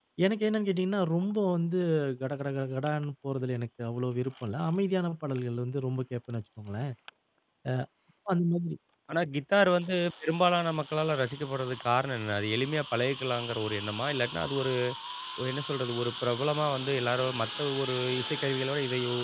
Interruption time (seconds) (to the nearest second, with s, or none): none